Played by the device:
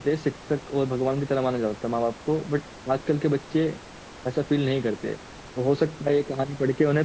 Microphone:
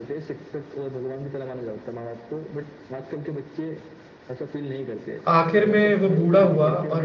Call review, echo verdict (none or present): present